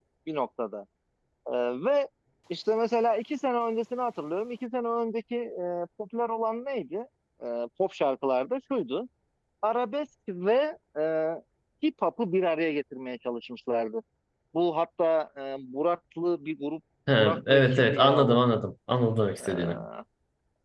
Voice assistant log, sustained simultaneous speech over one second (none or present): present